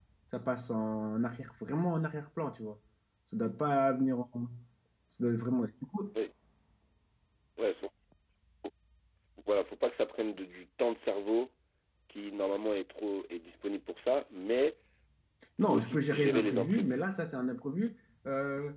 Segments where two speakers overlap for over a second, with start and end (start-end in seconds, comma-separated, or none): 15.6-17.0